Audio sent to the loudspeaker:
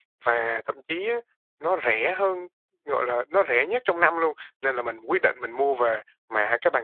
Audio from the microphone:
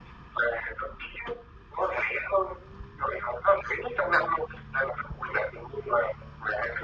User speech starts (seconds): none

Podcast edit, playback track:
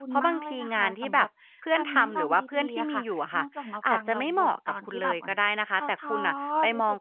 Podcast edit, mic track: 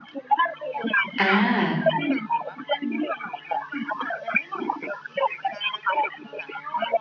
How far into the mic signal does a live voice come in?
1.2 s

